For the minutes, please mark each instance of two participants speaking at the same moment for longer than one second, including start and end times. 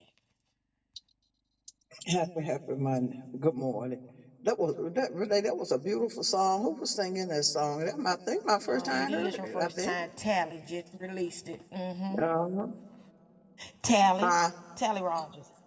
8.7-9.9

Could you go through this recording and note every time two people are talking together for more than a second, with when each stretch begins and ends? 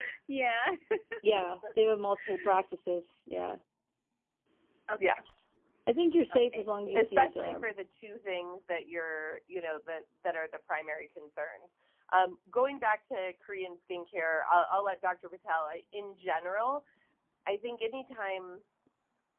6.3-7.7

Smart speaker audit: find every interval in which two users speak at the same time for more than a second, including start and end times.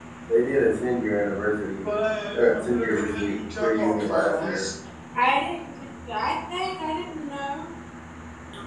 2.3-4.6

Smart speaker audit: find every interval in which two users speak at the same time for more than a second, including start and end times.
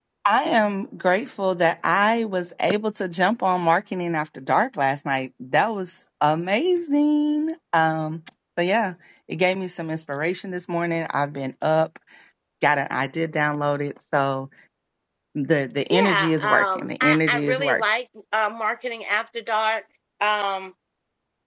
15.9-17.8

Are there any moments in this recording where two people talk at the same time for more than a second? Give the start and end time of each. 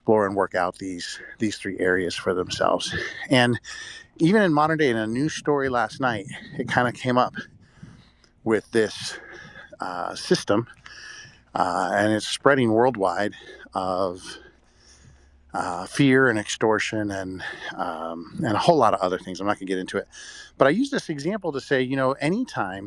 none

